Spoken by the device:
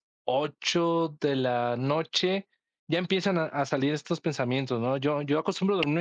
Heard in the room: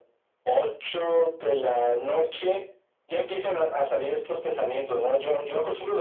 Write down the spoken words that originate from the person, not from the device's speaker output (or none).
none